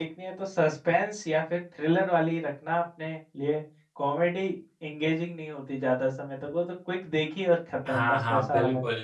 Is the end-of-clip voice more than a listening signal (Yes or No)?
Yes